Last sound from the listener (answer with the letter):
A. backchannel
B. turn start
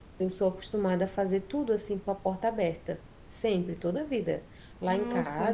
A